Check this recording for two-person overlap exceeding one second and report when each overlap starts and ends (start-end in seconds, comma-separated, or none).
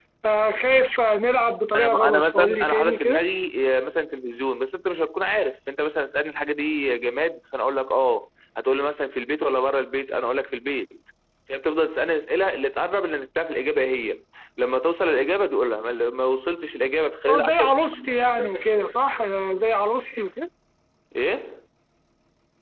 1.7-3.2